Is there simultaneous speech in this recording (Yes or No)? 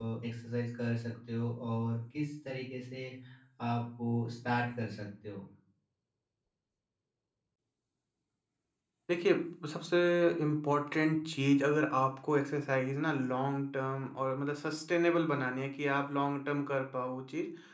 No